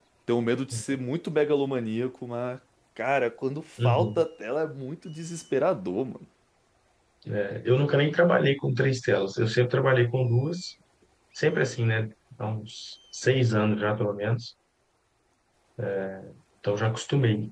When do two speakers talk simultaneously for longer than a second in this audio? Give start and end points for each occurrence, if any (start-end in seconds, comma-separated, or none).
none